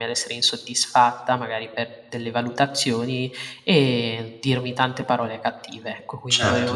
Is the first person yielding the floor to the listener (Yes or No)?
No